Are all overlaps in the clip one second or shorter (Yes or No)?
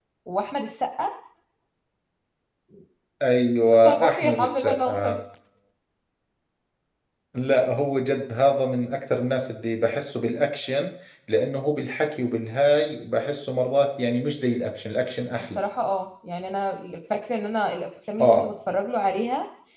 No